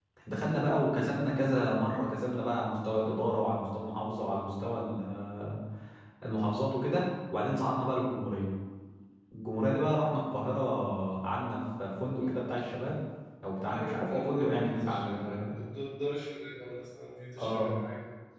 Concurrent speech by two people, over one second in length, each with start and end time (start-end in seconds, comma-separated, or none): 13.7-15.5